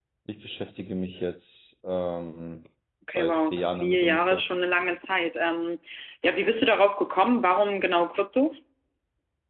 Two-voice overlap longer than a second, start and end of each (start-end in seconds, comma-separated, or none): 3.1-4.4